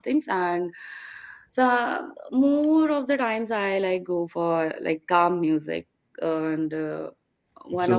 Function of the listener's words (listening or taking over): taking over